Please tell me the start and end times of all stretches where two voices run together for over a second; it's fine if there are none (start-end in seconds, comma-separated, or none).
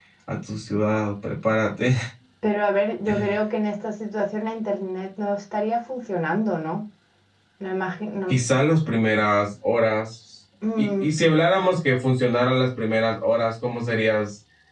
none